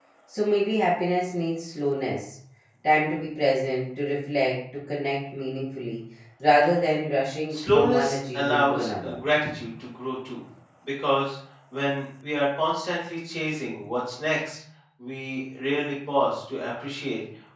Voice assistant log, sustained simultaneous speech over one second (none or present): present